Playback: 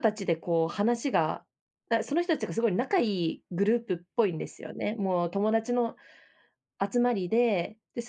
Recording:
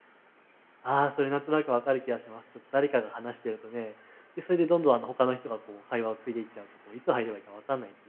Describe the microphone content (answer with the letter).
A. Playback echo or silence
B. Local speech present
B